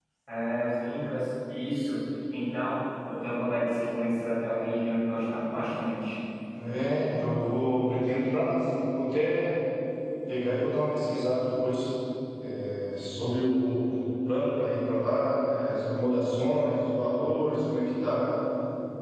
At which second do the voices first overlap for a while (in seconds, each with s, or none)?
none